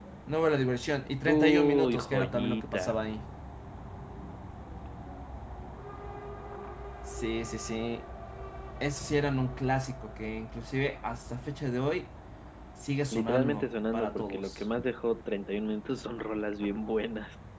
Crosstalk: present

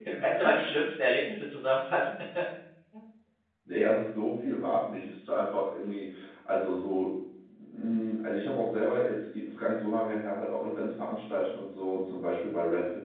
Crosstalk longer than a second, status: none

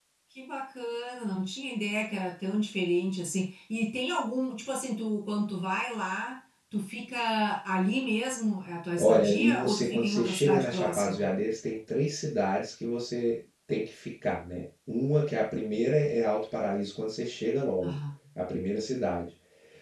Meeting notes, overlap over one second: present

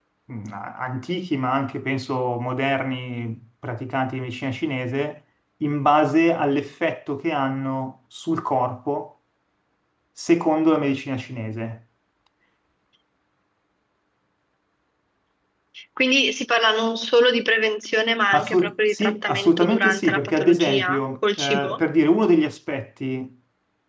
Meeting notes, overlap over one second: present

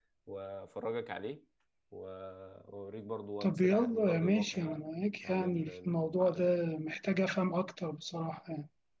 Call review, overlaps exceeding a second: present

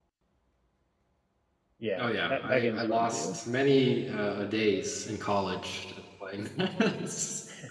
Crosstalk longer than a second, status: present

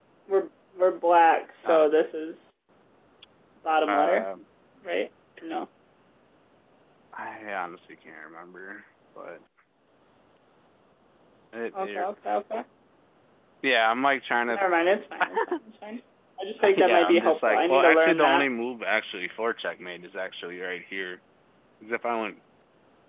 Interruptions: present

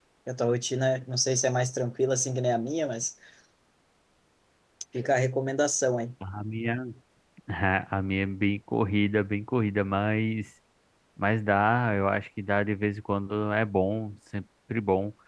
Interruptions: none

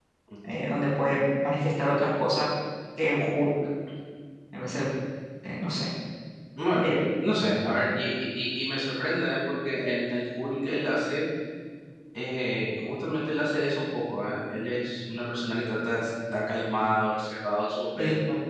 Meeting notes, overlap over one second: none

